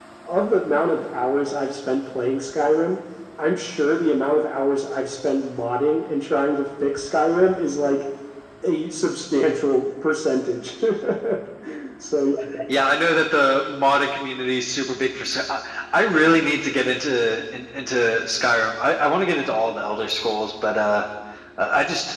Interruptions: none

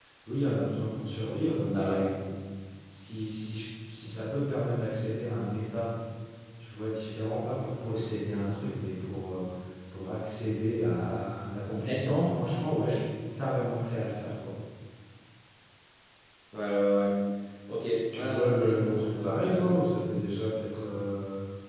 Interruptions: present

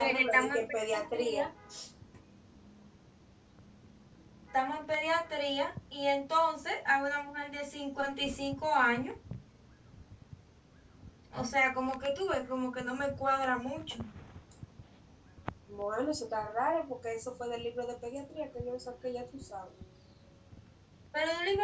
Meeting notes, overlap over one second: present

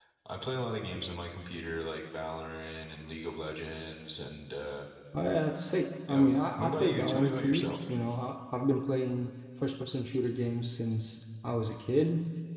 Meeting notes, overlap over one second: present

